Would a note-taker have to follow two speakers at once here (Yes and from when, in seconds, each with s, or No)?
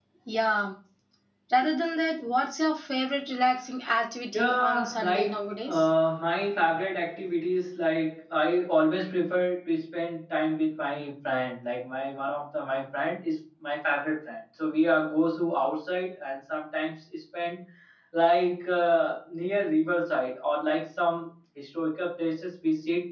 Yes, from 4.3 s